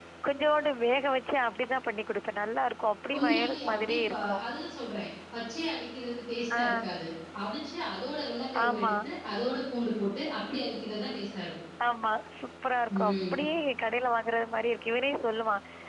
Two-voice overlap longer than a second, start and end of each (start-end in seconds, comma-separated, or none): 3.1-4.3